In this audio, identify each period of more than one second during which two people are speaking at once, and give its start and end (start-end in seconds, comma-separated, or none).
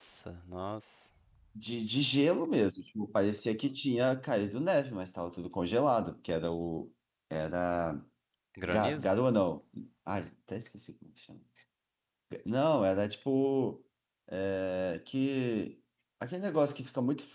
none